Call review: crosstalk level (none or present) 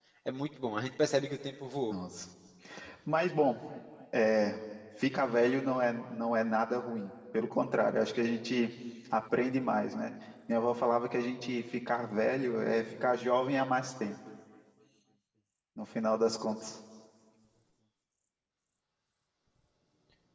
none